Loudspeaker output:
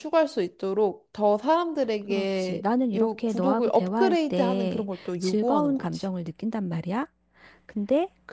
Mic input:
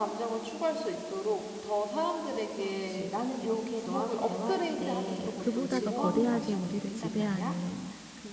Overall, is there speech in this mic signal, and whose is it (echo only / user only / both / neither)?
both